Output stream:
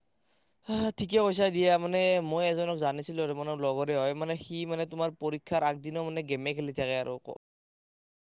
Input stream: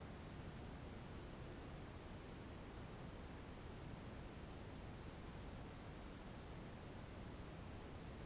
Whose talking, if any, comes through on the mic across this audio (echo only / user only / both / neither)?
neither